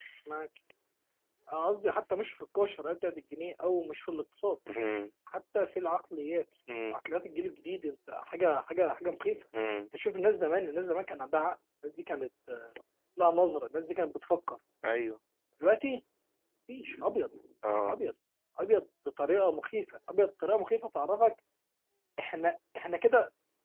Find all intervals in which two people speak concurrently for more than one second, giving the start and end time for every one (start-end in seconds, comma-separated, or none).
none